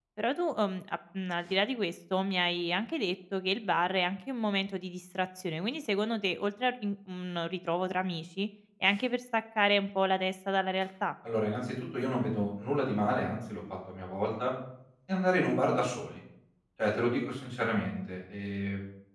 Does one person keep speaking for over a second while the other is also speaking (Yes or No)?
No